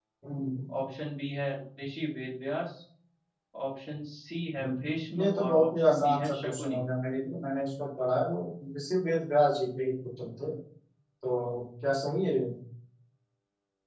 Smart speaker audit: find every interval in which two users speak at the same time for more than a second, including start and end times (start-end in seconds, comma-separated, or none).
4.6-6.8